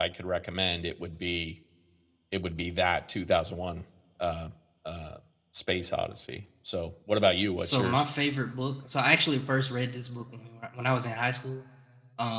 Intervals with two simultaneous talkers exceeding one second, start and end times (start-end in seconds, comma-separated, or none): none